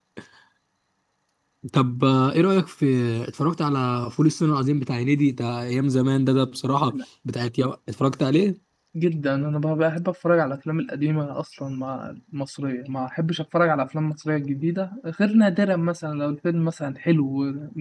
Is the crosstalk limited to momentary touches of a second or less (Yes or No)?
Yes